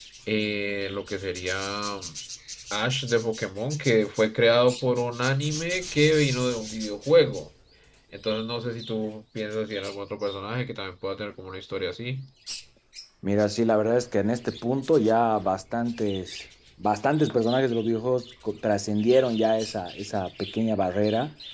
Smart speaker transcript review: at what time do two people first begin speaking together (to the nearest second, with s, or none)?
none